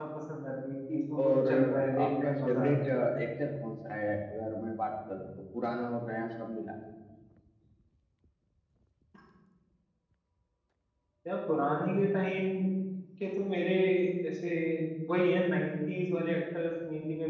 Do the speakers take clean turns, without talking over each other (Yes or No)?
No